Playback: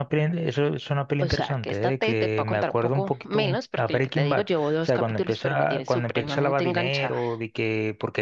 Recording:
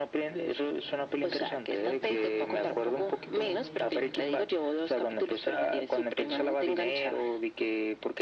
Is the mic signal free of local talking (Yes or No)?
No